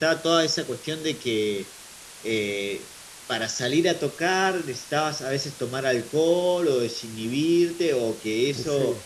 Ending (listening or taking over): listening